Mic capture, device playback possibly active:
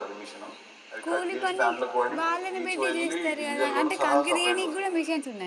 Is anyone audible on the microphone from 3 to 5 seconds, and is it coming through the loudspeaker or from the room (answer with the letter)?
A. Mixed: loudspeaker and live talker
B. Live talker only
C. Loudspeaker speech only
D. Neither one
A